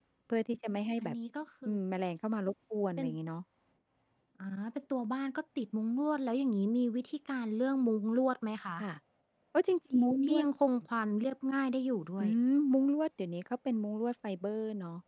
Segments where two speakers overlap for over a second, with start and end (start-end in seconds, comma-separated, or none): none